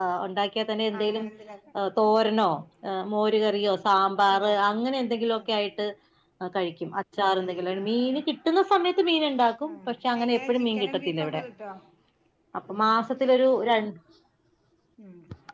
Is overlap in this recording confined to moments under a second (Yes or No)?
No